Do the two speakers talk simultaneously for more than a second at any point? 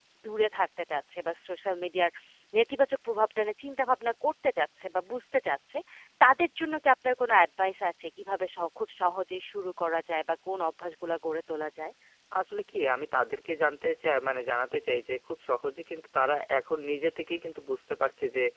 No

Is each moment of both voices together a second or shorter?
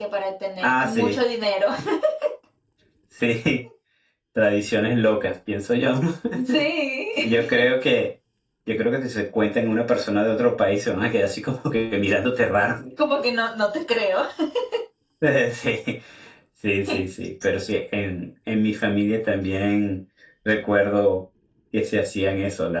Yes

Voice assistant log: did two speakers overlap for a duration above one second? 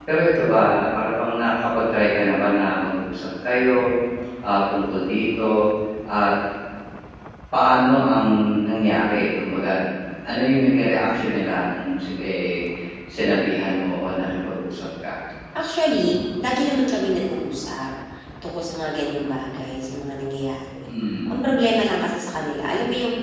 No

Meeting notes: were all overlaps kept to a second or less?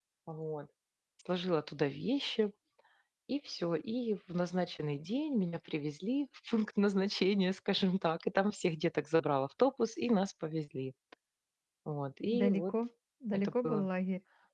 Yes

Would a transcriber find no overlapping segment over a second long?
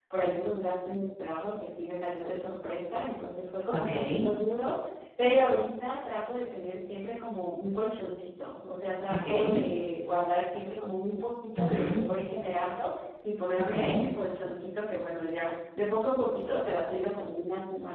Yes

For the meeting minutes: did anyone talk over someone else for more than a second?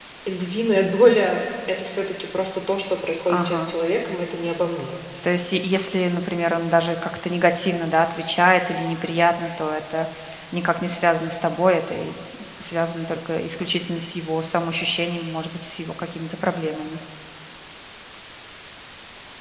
No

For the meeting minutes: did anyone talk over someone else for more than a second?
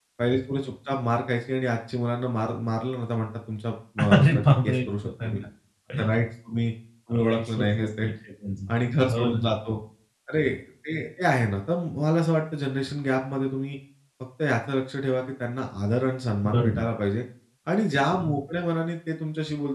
Yes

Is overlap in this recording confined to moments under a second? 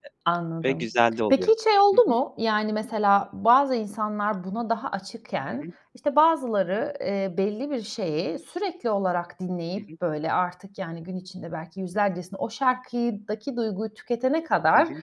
Yes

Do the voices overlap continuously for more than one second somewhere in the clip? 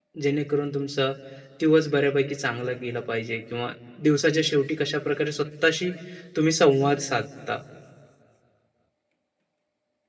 No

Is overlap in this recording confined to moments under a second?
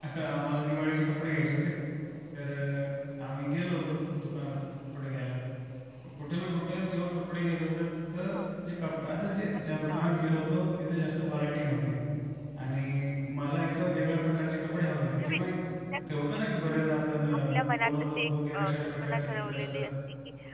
No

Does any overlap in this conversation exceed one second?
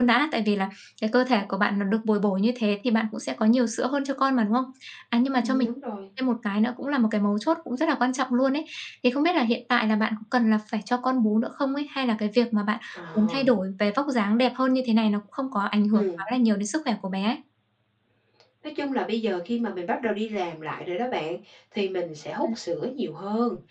No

